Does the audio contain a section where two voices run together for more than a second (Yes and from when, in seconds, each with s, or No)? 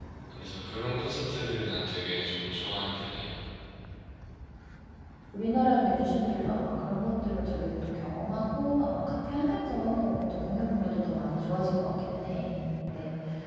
No